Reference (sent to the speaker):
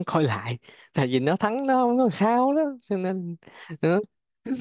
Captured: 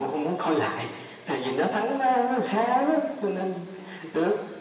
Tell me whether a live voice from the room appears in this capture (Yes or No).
No